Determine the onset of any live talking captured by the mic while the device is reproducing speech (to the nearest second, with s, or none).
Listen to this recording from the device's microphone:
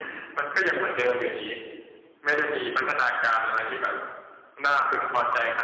none